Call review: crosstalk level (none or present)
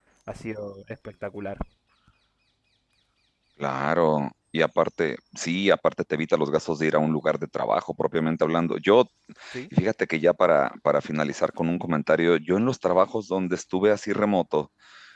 none